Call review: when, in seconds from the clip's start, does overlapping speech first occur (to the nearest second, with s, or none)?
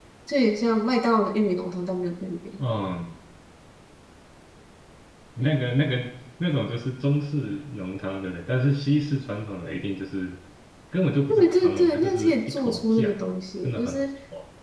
11 s